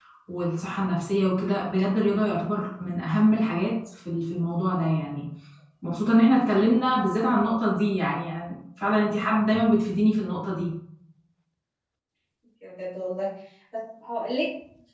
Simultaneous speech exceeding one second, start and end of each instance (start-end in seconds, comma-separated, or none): none